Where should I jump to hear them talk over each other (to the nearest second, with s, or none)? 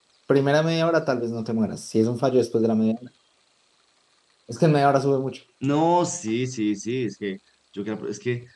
none